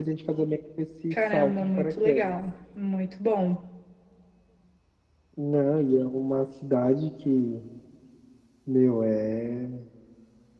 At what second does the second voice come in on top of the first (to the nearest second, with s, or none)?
1 s